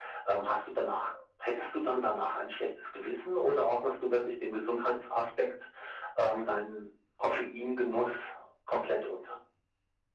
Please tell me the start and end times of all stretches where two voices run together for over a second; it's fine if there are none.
none

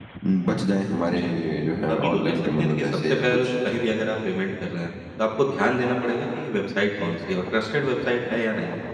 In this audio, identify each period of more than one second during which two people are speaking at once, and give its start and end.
1.9-3.5

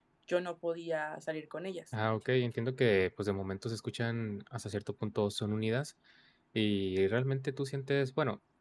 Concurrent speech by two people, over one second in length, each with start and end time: none

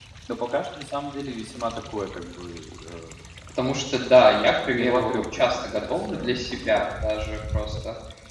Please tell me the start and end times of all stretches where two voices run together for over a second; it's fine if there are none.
4.8-6.8

